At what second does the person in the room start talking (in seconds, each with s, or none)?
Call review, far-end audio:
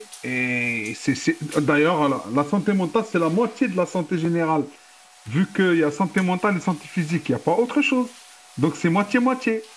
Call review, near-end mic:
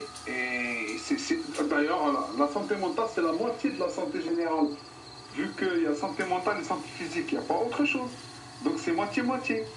none